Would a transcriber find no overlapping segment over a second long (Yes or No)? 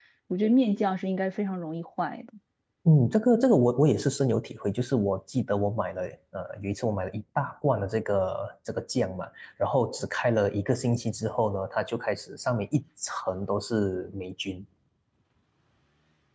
Yes